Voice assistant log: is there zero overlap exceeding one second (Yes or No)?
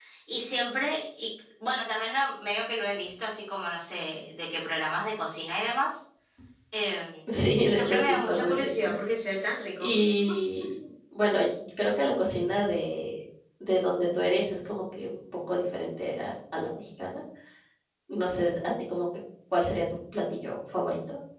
No